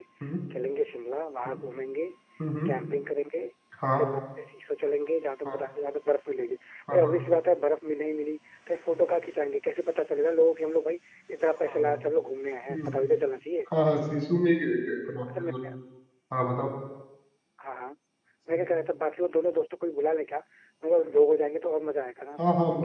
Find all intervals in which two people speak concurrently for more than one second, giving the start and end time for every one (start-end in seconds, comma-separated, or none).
none